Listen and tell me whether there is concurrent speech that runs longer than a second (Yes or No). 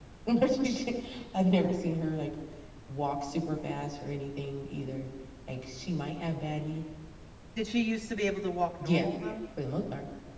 No